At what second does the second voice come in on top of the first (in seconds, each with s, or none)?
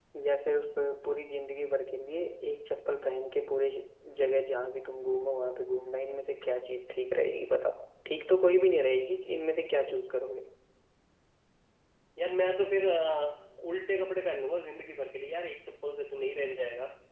none